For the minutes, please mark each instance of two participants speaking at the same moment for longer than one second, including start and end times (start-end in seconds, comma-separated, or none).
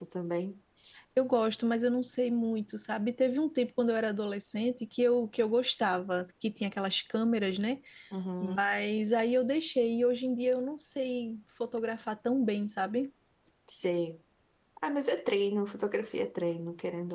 none